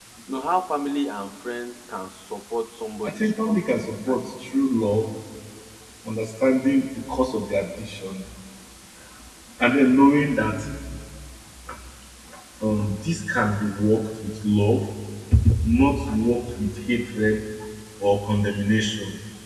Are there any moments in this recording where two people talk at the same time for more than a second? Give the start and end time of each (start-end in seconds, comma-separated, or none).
3.0-4.5